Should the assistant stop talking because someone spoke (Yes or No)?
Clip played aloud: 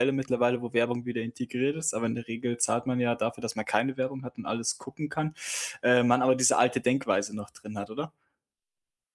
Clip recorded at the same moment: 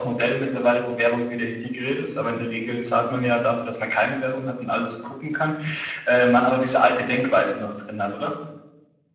No